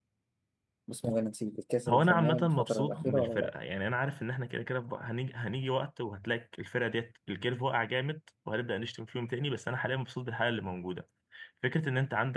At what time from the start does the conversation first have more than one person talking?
1.9 s

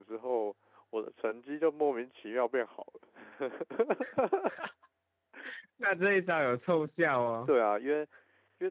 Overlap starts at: none

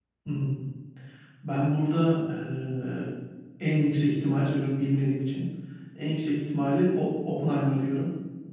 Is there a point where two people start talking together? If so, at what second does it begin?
none

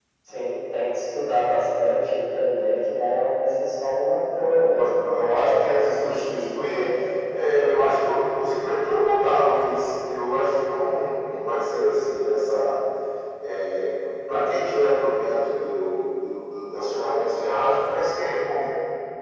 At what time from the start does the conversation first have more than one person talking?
4.2 s

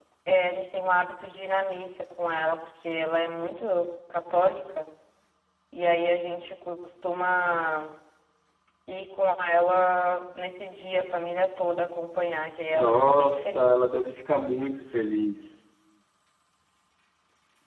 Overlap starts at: 12.7 s

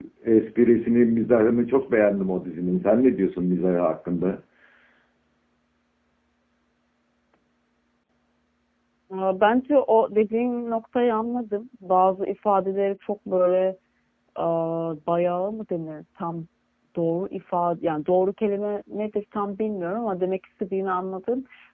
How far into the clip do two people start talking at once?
none

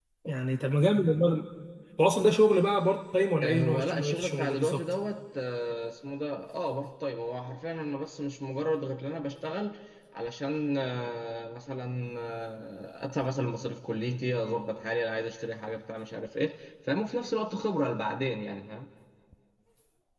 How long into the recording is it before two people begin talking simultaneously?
3.4 s

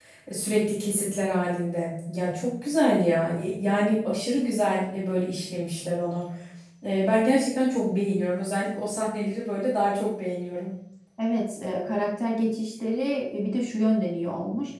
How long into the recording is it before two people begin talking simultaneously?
none

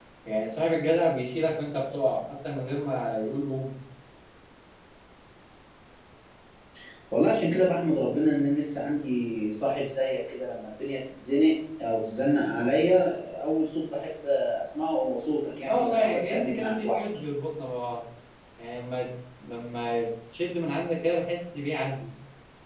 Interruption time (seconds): 15.7 s

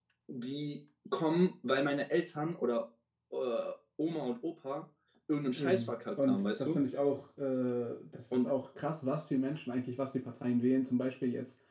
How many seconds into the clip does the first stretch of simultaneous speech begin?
5.5 s

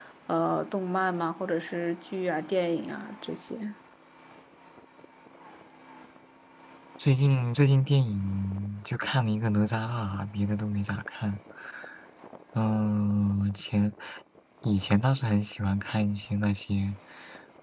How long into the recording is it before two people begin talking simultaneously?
none

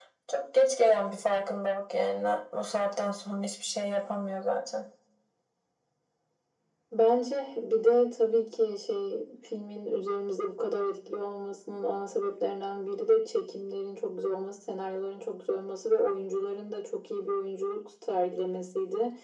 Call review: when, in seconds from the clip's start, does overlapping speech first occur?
none

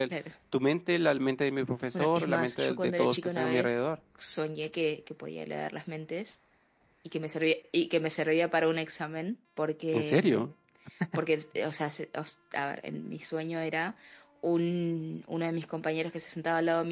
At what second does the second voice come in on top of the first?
1.9 s

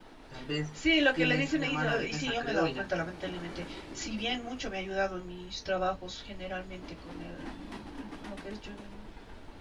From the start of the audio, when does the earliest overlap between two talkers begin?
1.2 s

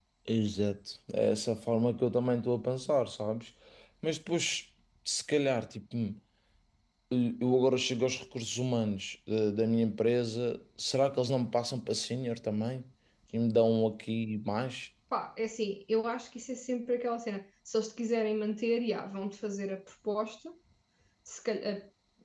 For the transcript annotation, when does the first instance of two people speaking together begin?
none

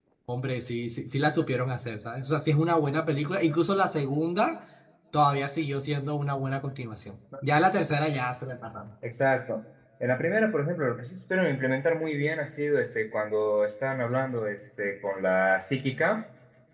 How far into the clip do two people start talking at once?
none

